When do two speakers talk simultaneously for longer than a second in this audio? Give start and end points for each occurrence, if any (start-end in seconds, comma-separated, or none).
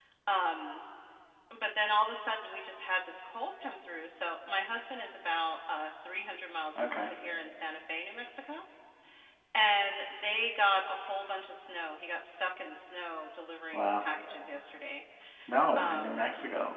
none